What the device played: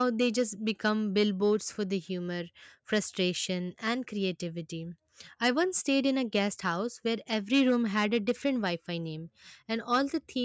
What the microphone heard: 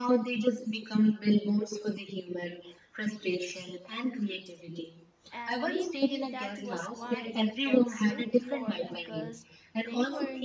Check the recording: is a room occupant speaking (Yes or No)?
Yes